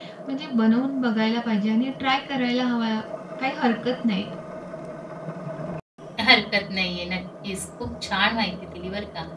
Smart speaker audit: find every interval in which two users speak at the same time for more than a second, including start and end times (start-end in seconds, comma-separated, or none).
none